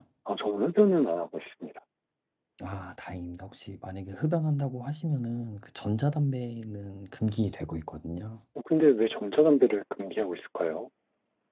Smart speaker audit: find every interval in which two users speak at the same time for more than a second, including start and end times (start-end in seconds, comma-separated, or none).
none